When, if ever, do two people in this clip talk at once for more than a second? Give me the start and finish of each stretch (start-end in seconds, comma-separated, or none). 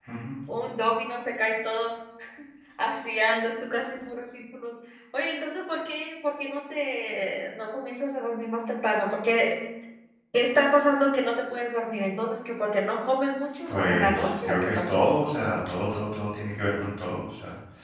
13.7-15.0